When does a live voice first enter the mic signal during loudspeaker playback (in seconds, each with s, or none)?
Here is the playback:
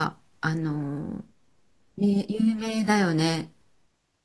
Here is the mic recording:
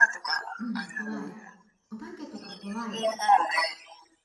0.6 s